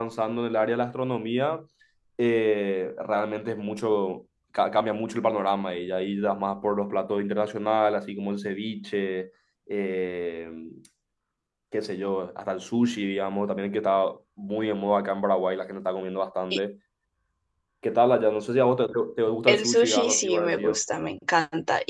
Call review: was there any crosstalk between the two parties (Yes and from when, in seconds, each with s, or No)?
Yes, from 19.5 s